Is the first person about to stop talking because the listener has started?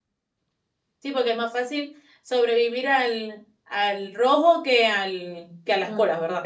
Yes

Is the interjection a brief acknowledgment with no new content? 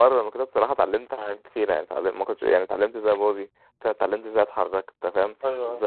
Yes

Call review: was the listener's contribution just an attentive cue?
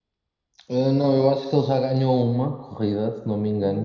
Yes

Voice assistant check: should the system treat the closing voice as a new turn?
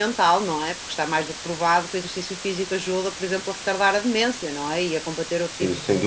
Yes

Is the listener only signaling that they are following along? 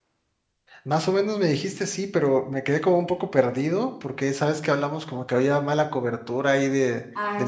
Yes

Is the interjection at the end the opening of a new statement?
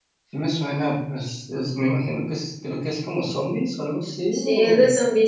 Yes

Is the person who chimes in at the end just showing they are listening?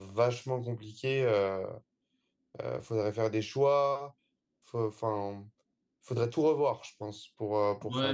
No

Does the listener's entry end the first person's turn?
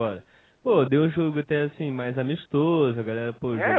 Yes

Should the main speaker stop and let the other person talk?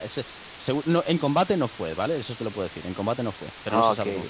Yes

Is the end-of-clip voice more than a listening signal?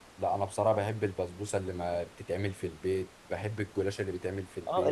Yes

